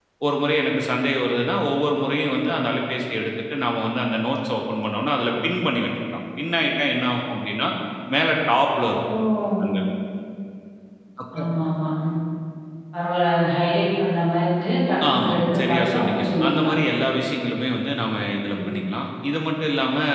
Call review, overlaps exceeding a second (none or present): present